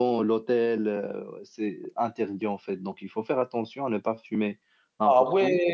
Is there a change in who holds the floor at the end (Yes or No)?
Yes